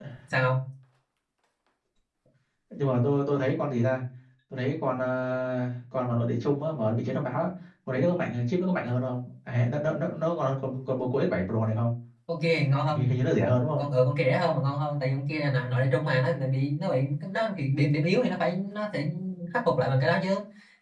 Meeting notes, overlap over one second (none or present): none